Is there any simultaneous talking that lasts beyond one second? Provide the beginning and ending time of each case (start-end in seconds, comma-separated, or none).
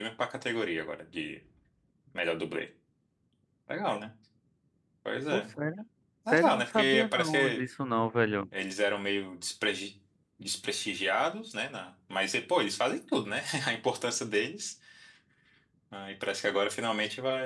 6.3-7.6